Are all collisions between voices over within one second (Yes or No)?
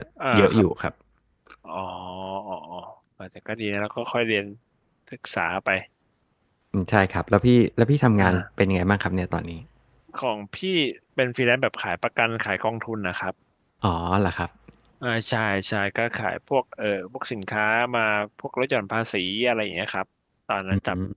Yes